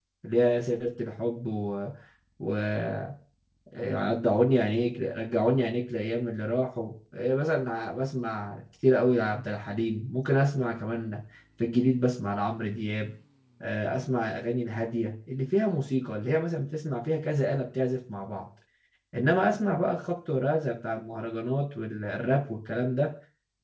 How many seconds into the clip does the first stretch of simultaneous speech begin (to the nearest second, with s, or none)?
none